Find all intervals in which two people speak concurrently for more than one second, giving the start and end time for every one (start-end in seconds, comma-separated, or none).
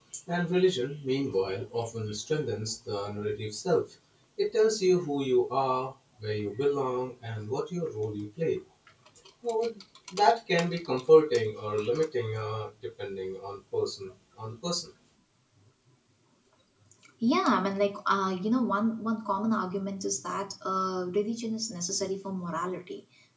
none